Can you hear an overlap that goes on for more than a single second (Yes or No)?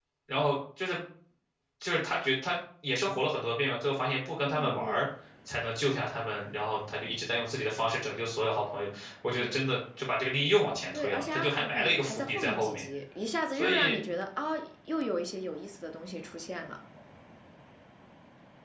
Yes